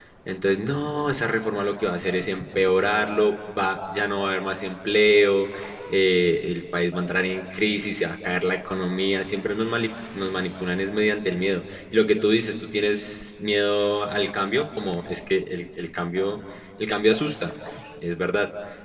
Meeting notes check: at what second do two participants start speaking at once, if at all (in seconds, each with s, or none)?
none